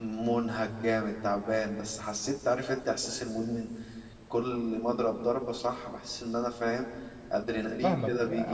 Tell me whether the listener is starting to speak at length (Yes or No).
Yes